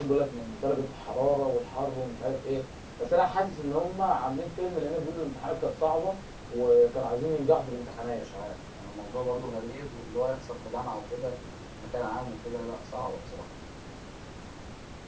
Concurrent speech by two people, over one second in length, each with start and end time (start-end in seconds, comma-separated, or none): none